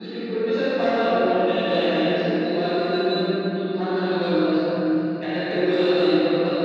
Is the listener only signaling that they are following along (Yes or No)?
Yes